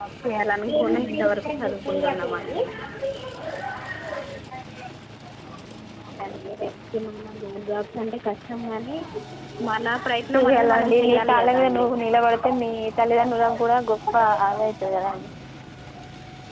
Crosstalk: present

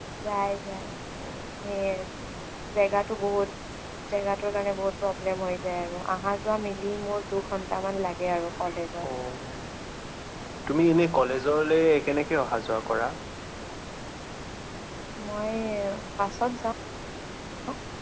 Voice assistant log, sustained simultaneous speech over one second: none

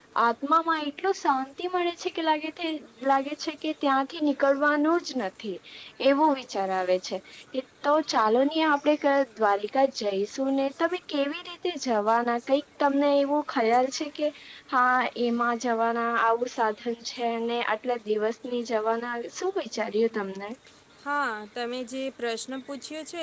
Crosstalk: none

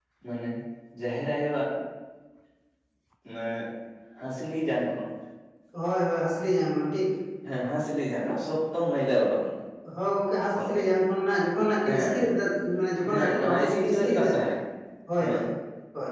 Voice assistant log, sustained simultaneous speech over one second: present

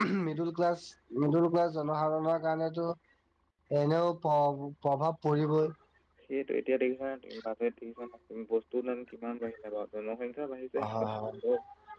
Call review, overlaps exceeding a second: none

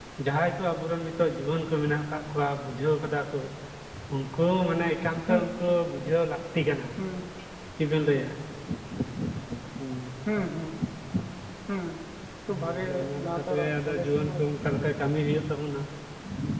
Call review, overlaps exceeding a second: present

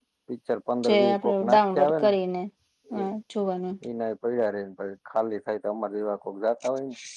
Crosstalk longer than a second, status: present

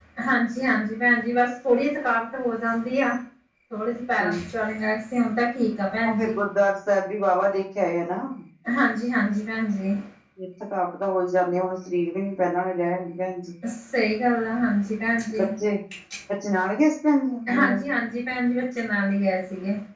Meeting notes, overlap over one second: none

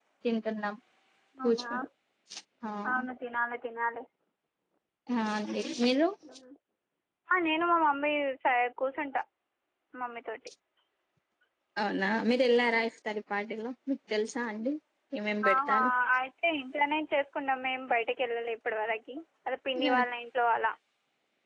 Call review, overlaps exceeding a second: none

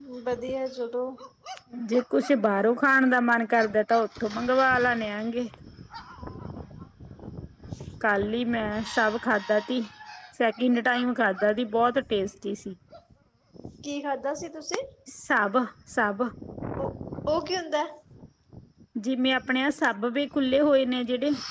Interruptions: none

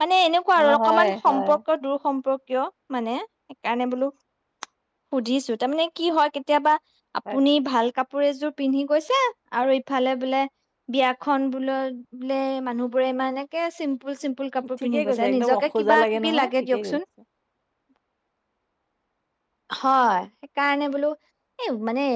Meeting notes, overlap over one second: present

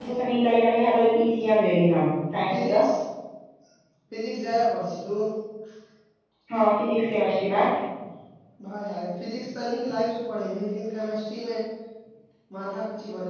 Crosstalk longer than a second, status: none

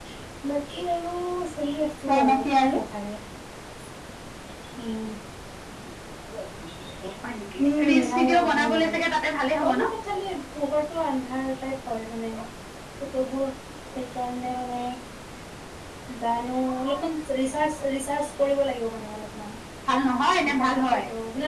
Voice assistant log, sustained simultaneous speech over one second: present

